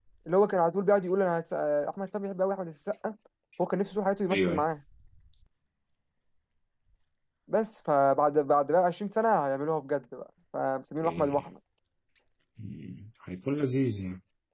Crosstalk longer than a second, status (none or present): none